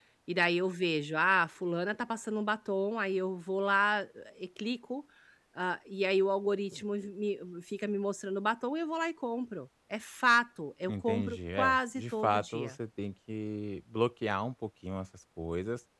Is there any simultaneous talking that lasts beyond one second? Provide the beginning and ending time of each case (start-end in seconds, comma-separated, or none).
10.9-12.8